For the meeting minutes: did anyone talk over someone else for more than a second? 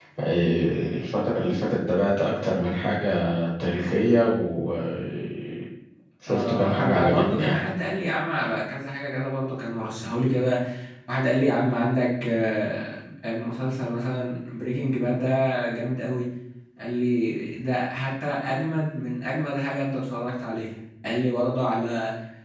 Yes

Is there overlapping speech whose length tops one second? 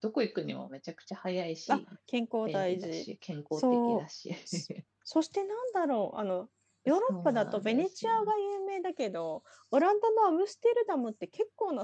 Yes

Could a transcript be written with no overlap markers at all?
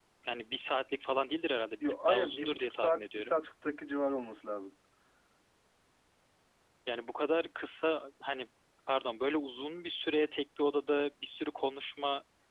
No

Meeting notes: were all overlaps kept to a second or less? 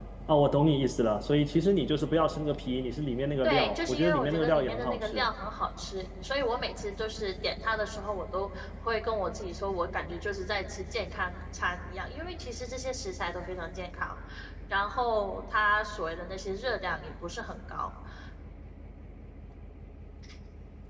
No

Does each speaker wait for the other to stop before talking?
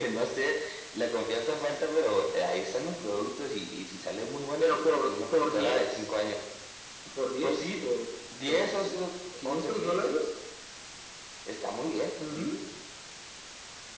No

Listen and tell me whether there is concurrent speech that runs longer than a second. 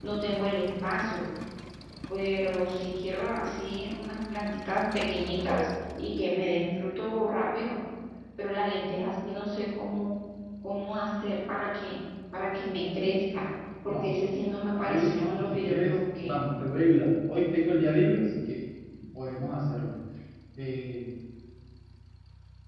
Yes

